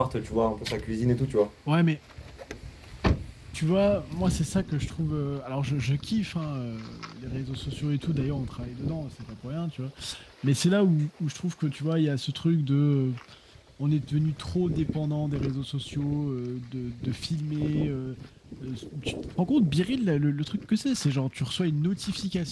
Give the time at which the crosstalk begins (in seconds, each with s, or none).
none